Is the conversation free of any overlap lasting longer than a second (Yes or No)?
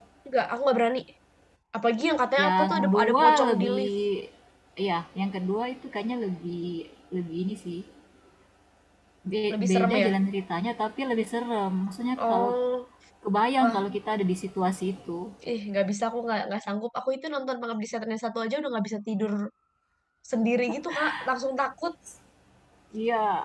No